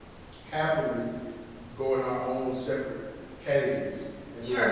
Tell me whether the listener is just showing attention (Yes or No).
No